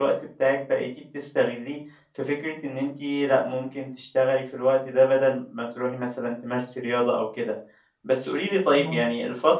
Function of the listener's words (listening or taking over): listening